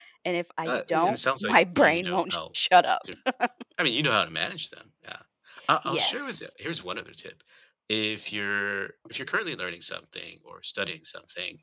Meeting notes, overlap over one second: present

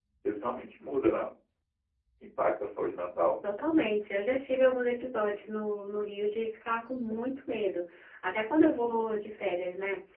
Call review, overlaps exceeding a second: none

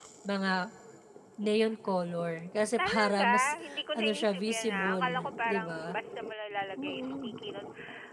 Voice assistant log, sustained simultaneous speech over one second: present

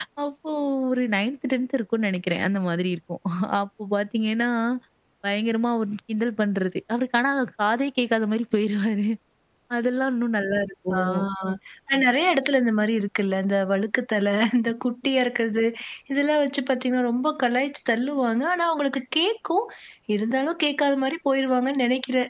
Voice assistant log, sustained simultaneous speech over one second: none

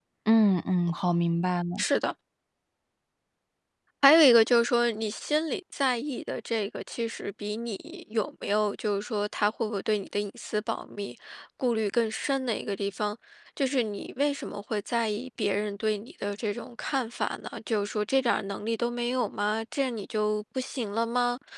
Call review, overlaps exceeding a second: none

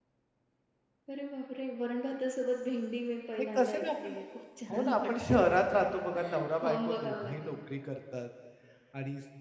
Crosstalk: present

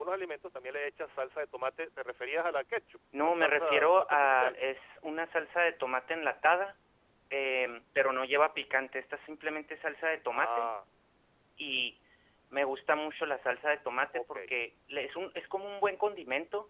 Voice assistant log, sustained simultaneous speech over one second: present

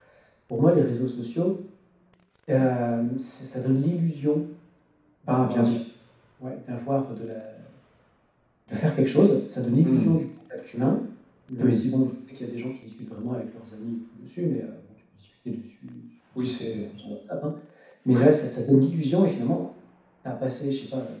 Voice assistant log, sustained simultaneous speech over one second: none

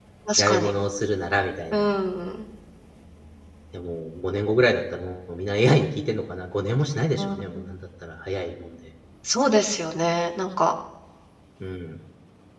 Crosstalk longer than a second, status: none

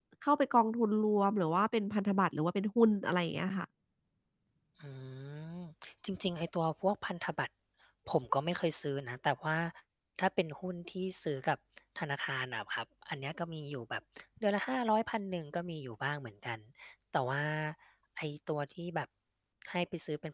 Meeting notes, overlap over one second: none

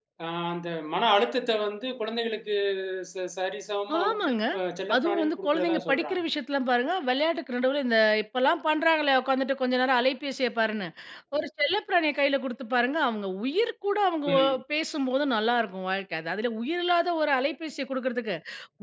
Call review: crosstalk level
present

